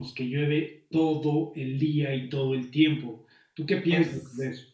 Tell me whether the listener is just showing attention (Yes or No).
No